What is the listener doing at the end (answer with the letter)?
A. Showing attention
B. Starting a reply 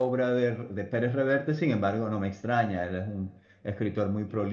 A